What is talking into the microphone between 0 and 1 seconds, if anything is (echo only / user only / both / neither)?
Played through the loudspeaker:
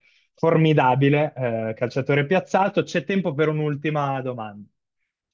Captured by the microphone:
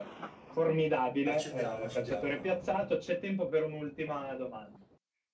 echo only